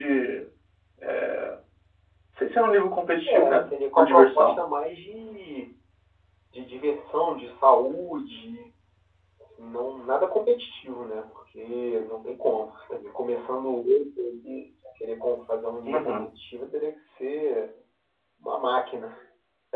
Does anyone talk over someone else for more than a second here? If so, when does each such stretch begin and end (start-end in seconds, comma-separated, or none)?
3.3-4.6